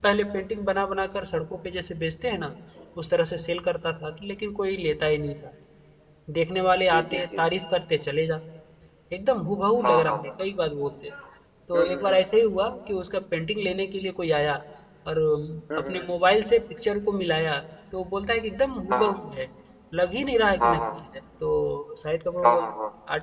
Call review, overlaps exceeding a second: none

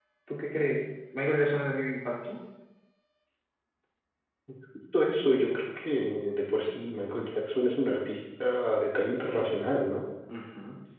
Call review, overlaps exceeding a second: none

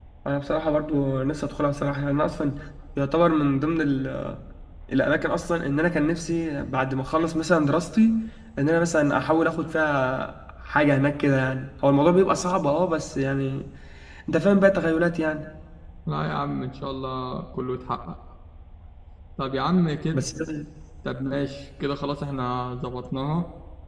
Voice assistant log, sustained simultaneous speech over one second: none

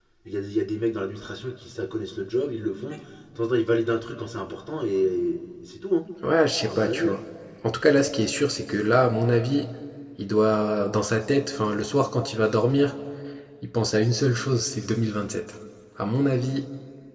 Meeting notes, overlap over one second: none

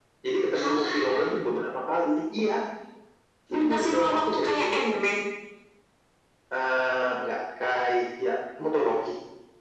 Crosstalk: present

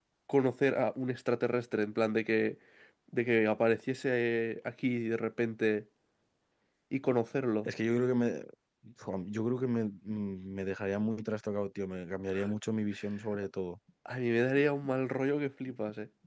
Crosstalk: none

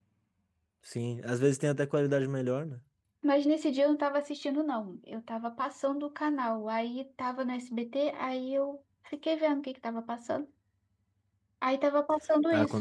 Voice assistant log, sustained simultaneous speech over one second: none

